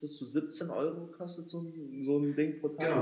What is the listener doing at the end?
taking over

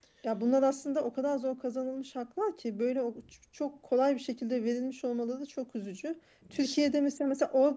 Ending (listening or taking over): listening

